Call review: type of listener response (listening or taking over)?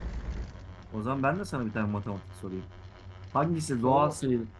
listening